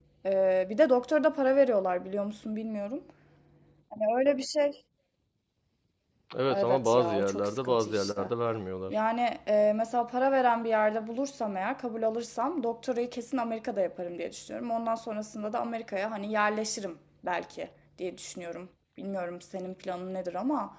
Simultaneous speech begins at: 6.5 s

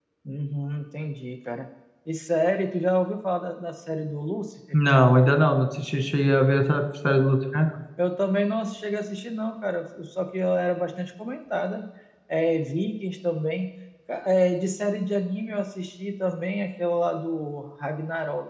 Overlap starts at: none

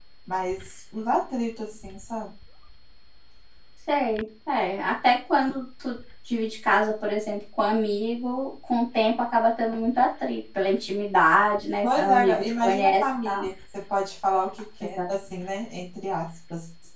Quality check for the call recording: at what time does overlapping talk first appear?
11.8 s

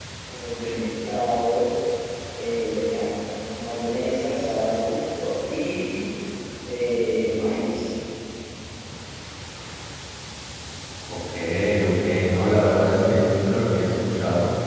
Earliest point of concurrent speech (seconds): none

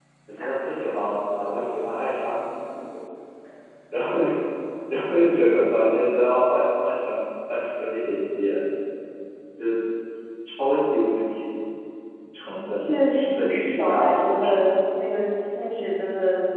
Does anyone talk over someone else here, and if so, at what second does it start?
12.6 s

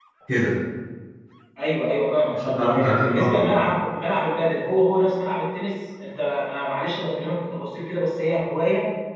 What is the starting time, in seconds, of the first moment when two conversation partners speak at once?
2.3 s

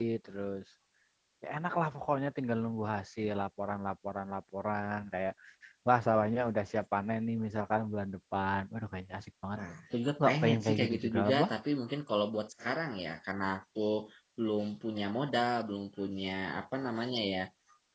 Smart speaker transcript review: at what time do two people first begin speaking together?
10.2 s

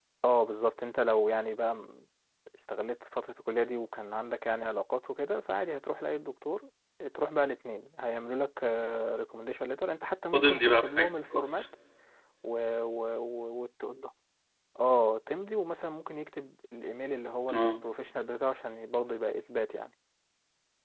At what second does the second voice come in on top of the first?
10.3 s

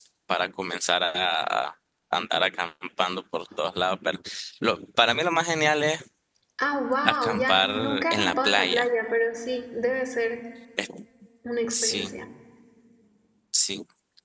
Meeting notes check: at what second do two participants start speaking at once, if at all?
7.0 s

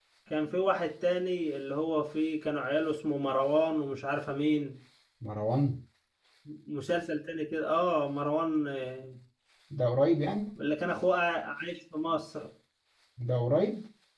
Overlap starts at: none

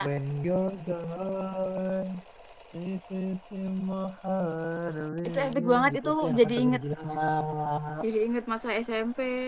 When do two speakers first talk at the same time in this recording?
5.2 s

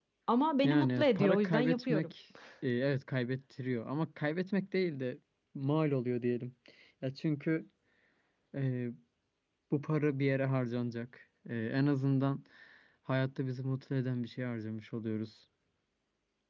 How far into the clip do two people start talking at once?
0.6 s

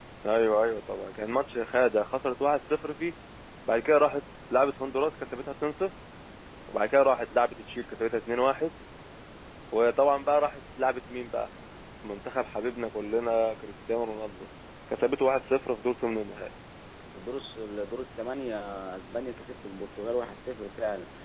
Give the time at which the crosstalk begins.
none

